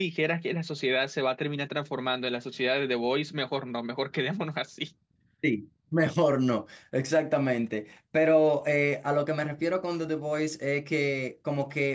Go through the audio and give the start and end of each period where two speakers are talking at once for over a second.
none

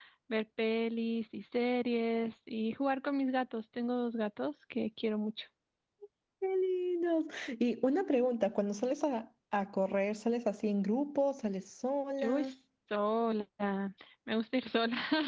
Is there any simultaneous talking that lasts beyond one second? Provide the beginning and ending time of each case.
none

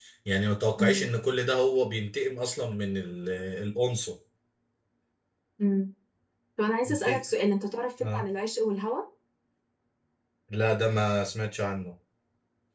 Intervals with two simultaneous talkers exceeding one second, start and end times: none

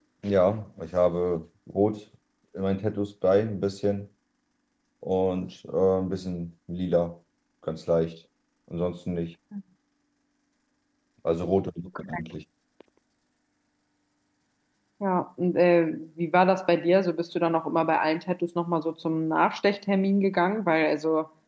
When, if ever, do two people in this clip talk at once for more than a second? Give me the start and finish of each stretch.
none

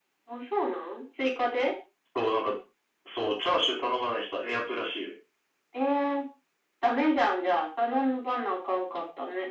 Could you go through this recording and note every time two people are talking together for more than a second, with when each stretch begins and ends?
none

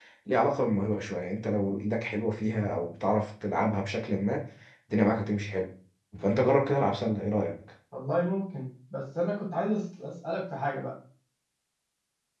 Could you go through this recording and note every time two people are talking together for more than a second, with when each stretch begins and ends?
none

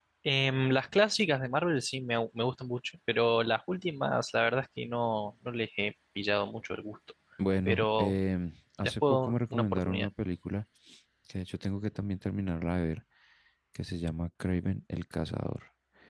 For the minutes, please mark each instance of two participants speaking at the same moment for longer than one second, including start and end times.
8.8-10.1

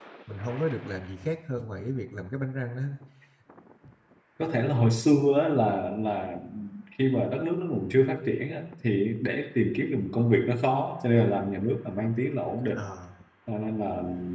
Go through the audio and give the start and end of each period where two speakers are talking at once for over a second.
none

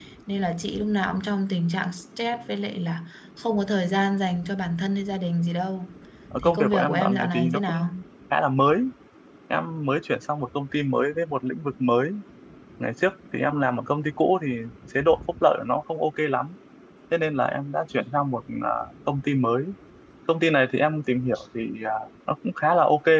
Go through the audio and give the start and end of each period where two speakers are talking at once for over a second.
6.4-7.8

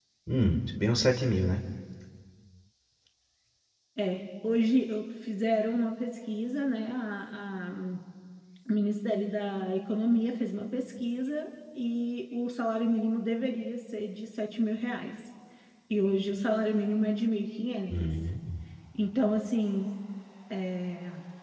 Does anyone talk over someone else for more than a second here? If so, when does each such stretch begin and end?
none

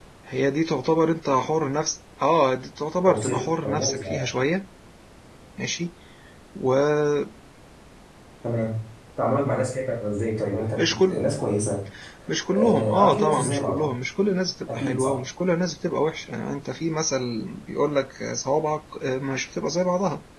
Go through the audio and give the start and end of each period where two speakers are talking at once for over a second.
3.0-4.3, 12.6-13.9

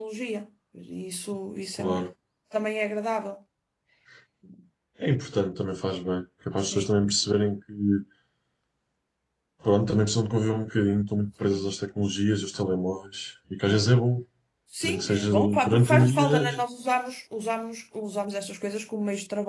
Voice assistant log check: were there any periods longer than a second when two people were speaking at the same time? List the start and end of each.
14.8-16.6

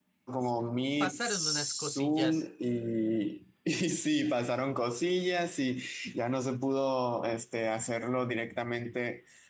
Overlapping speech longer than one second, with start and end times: 1.0-2.5

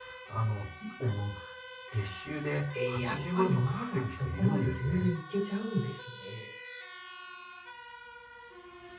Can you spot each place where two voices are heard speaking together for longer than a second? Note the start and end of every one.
2.9-5.1

